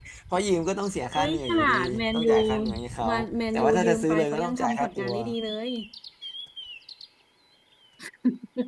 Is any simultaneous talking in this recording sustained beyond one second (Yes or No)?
Yes